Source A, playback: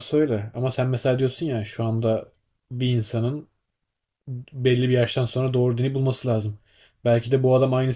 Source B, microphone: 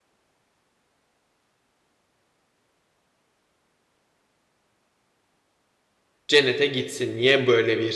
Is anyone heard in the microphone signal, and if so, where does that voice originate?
user only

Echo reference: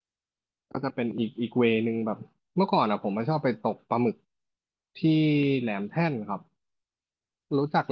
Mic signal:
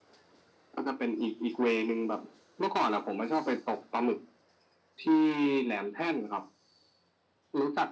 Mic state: echo only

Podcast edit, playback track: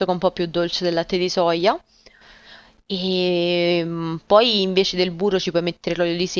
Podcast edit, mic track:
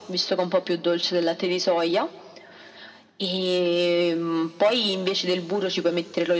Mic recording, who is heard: echo only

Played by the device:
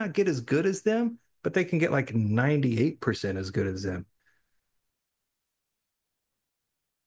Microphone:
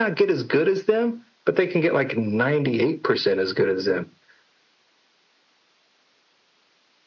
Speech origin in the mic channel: echo only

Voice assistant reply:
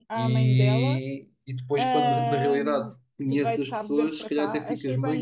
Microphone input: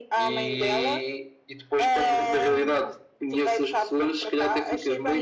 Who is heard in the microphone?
echo only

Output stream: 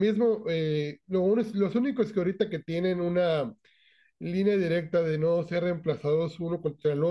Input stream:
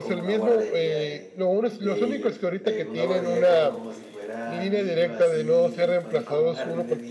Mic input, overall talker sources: both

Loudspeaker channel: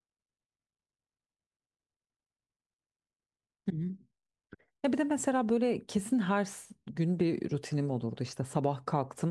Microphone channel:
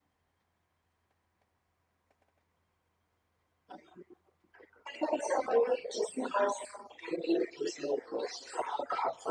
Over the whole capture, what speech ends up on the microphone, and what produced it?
echo only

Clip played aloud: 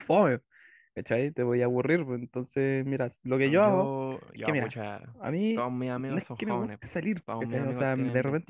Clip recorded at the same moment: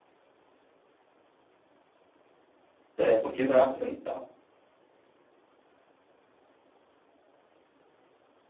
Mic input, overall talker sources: user only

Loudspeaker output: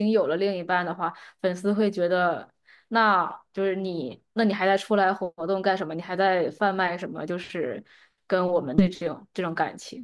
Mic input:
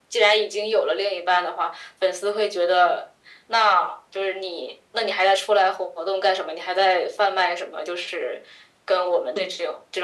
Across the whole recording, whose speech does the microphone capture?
echo only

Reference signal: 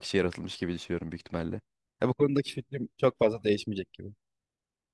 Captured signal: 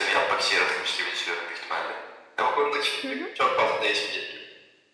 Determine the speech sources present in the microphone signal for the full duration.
both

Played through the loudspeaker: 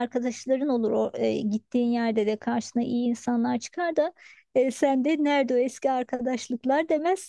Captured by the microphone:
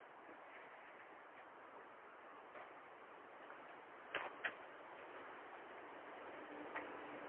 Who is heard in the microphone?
neither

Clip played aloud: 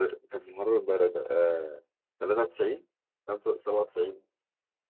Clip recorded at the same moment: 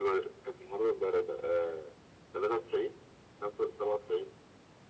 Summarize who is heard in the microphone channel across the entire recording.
echo only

